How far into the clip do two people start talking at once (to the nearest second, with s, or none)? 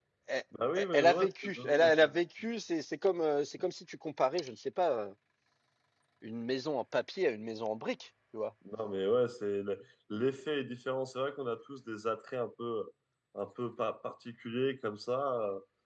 1 s